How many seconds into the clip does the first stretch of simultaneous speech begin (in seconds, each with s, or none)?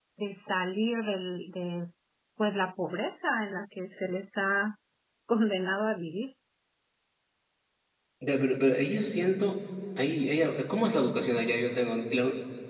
none